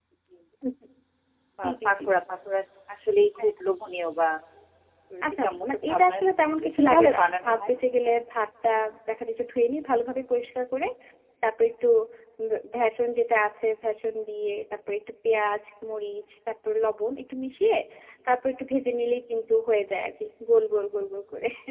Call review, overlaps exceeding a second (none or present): present